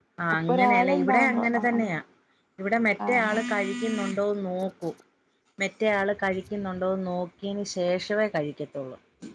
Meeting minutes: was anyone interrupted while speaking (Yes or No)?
Yes